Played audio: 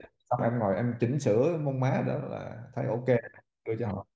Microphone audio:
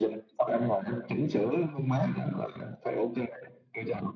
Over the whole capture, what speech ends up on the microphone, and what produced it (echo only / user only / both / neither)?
echo only